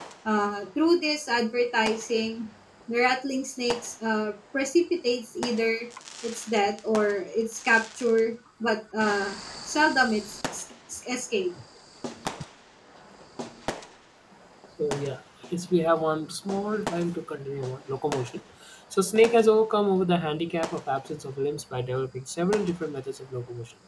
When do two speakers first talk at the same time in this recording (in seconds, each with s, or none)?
none